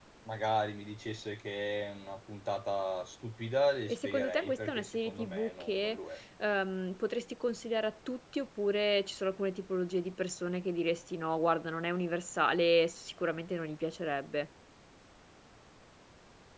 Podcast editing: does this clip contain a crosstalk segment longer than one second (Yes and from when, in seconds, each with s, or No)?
Yes, from 3.9 s